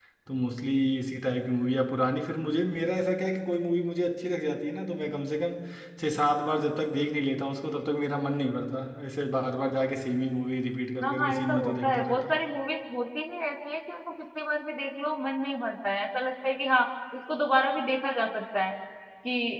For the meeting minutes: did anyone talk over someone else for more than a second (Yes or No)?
Yes